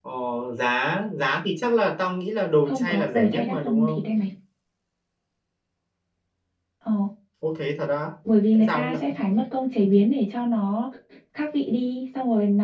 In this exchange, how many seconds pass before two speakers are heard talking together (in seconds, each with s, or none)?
2.7 s